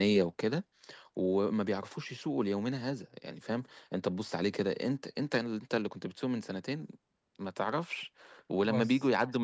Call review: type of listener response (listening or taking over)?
listening